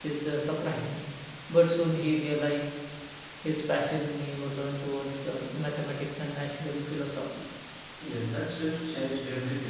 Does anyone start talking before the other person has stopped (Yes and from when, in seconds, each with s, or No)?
No